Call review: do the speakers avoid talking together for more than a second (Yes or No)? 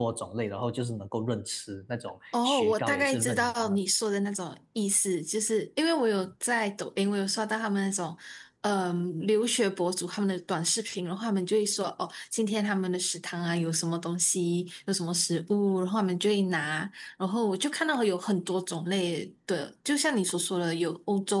No